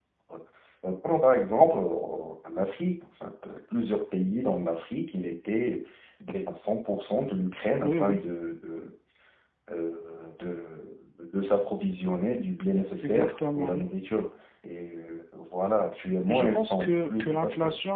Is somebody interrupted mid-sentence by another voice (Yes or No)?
Yes